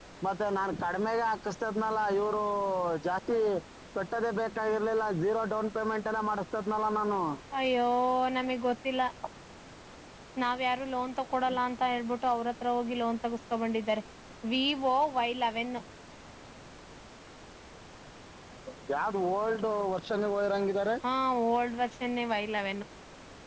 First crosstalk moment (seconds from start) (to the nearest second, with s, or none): none